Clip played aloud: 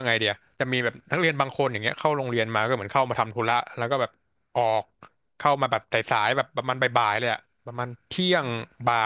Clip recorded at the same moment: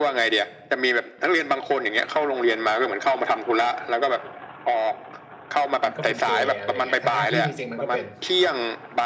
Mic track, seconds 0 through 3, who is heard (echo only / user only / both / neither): echo only